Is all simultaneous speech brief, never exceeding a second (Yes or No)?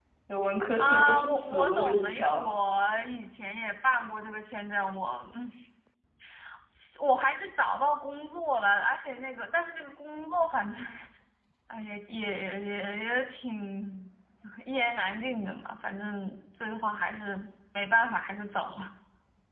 No